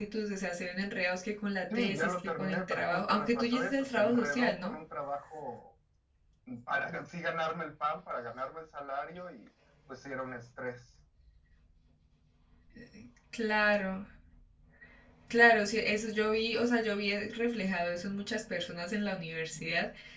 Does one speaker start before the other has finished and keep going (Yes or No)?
Yes